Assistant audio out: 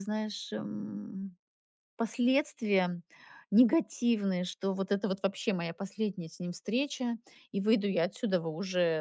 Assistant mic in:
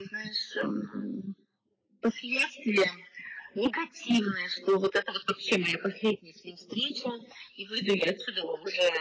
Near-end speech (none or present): none